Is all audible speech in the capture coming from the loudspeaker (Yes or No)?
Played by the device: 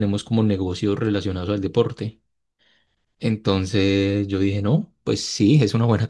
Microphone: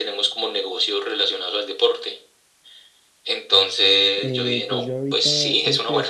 No